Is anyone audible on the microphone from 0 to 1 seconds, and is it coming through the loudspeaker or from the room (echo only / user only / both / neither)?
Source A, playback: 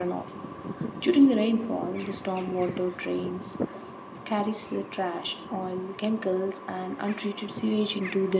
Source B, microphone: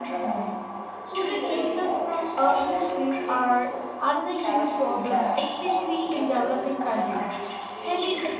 both